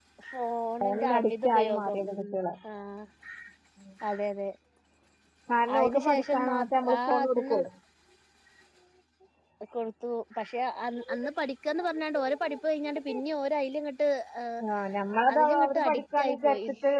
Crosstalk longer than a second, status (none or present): present